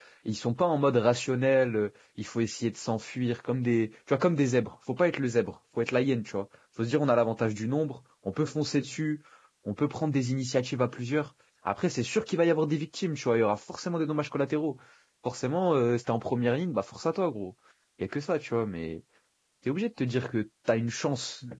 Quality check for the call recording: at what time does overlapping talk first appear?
none

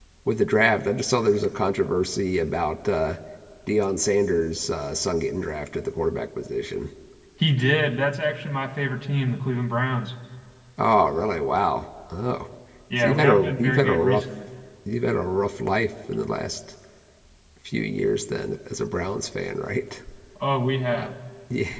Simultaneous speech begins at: 13.0 s

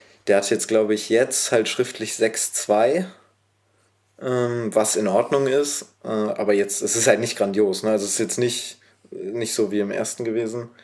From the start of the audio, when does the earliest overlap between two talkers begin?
none

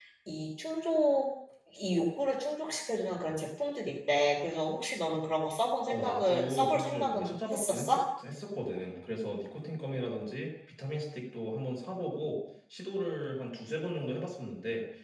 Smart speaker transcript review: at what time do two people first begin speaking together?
5.9 s

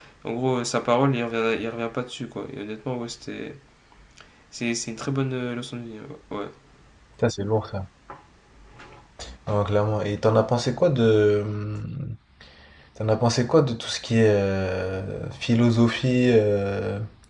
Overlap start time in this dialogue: none

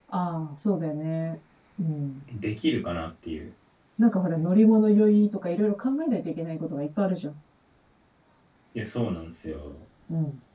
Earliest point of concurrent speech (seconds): none

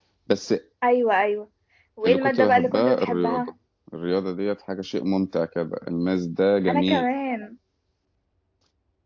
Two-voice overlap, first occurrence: 2.0 s

